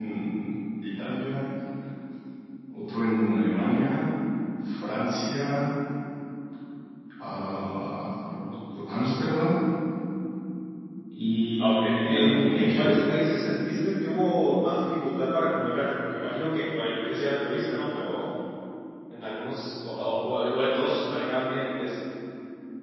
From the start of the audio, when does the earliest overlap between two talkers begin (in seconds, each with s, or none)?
11.6 s